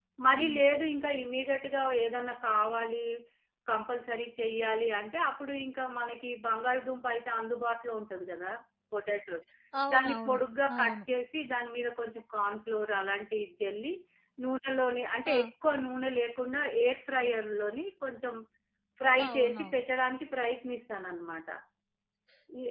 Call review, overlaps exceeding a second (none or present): none